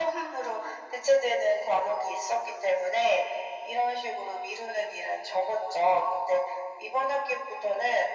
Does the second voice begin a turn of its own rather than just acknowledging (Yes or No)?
No